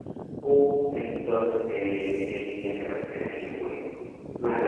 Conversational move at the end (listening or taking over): listening